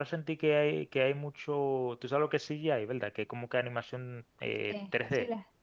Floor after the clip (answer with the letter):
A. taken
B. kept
A